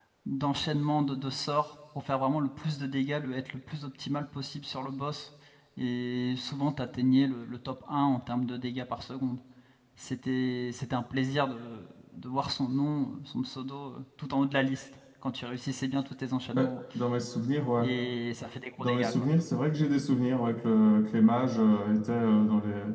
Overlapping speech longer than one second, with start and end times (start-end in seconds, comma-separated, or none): none